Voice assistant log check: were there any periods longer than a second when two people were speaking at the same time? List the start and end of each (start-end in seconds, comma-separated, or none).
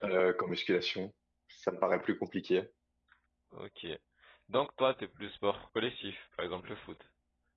none